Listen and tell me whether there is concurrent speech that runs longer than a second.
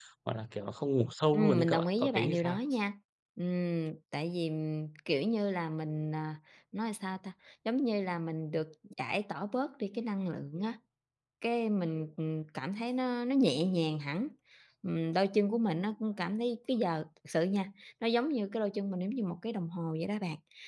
Yes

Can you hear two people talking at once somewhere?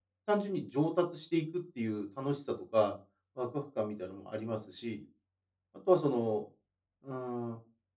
No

